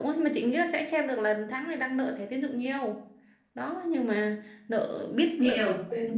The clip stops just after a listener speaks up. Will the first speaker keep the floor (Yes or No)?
No